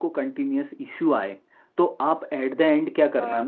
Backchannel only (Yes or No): Yes